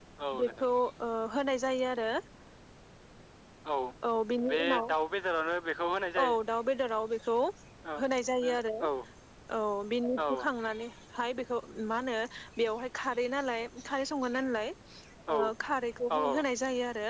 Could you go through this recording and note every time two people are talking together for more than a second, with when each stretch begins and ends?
none

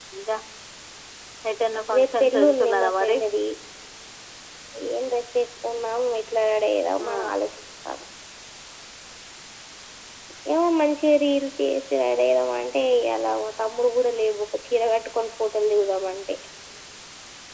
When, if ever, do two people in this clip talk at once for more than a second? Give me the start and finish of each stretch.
2.0-3.2

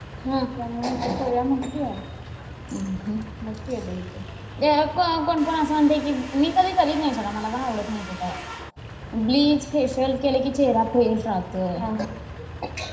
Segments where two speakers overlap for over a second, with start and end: none

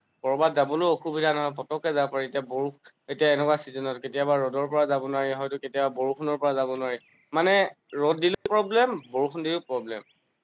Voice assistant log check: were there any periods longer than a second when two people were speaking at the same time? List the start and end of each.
none

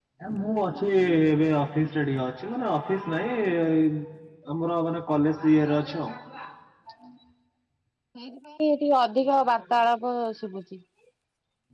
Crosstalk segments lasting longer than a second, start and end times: none

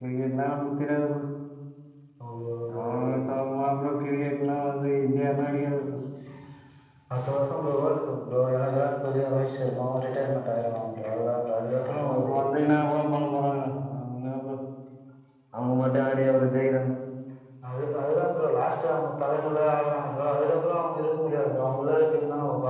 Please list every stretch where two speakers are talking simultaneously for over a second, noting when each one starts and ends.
none

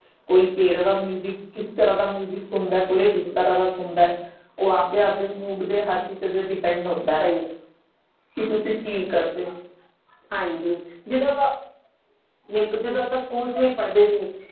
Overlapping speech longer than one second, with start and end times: none

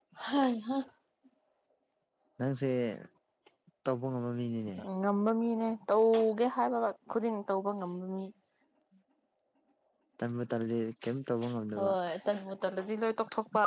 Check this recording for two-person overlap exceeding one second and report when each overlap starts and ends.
none

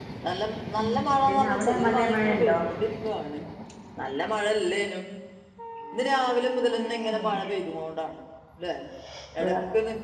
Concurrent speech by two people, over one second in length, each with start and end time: 1.2-2.6

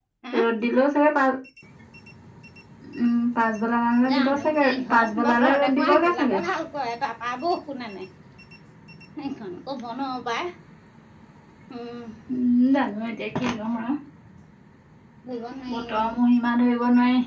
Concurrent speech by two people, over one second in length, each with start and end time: 4.1-6.4

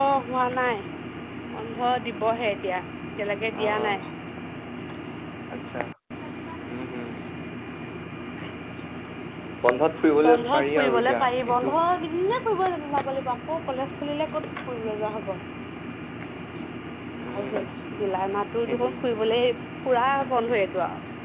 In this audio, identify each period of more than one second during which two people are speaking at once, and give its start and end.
10.3-11.7

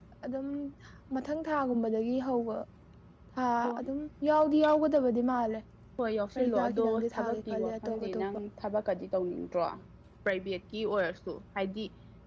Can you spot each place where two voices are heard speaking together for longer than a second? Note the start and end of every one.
6.4-8.2

